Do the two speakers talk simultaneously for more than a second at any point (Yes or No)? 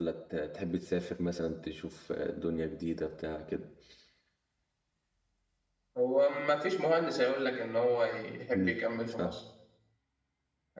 No